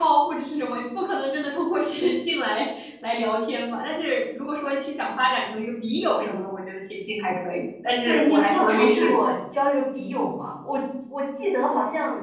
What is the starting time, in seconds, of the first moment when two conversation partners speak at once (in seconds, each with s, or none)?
8.1 s